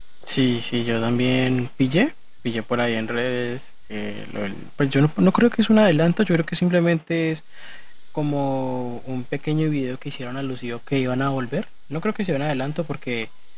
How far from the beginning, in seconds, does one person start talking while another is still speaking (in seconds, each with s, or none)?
none